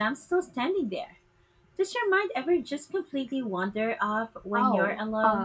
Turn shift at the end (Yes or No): Yes